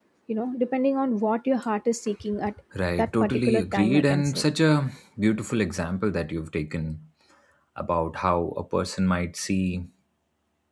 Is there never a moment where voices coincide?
No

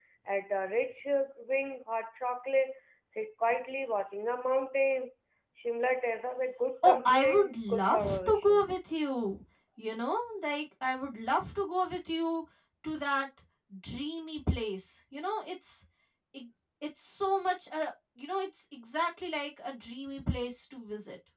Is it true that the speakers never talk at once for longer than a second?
No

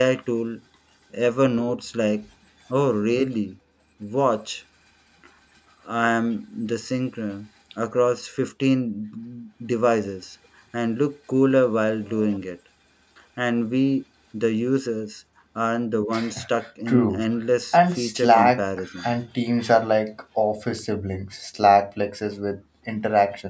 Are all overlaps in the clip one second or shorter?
No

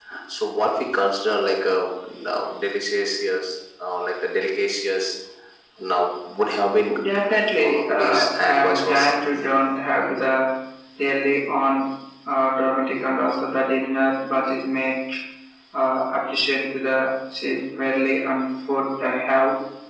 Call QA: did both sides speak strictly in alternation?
No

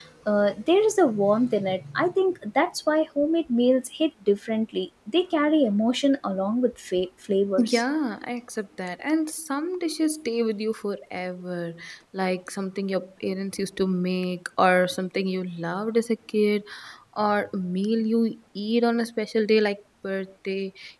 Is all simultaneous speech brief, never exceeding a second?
Yes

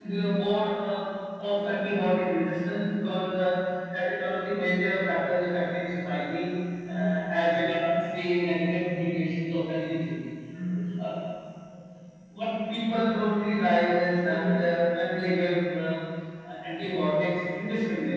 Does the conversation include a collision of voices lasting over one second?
No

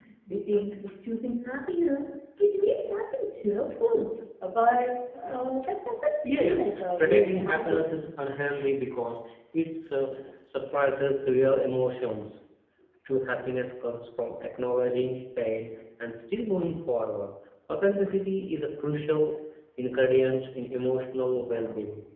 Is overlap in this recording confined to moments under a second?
No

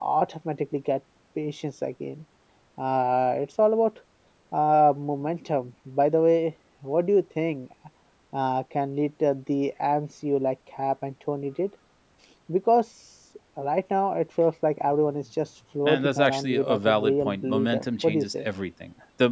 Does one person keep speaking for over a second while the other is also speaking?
Yes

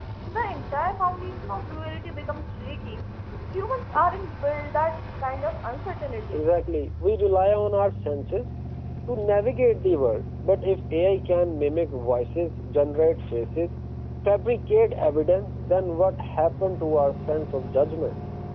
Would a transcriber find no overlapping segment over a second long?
Yes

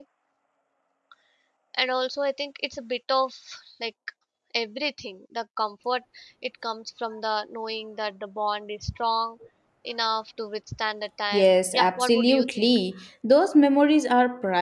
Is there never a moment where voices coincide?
No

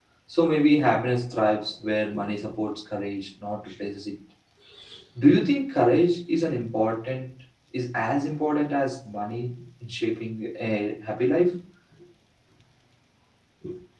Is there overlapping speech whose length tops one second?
No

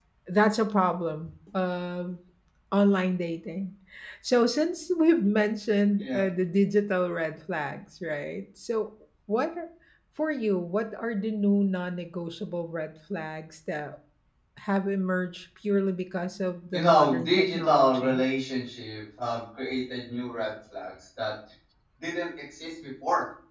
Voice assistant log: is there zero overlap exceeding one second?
No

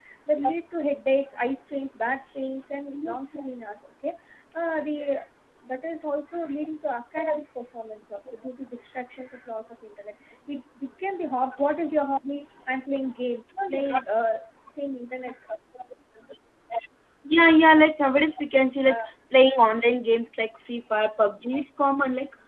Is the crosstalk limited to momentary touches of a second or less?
Yes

